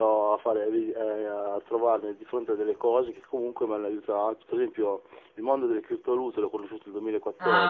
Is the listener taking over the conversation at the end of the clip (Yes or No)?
No